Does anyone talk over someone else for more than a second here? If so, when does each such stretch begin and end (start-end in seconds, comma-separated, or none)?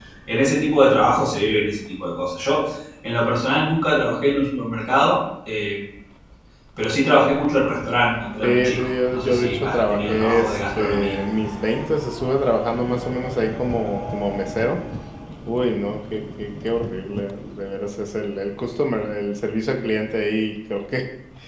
8.4-11.2